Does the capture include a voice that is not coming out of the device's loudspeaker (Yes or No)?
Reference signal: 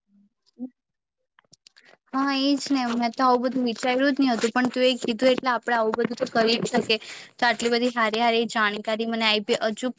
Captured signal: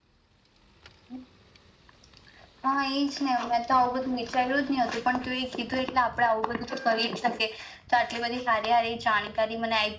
No